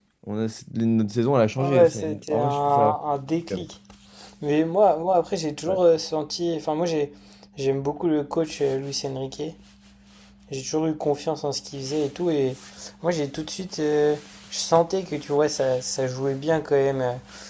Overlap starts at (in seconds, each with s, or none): 1.6 s